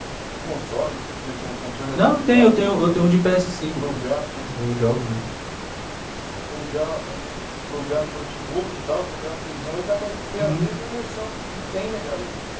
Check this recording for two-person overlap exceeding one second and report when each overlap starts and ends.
1.9-3.1

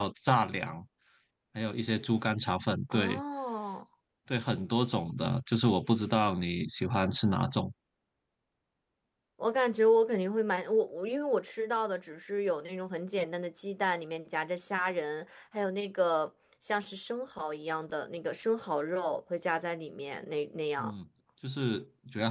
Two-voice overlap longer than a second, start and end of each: none

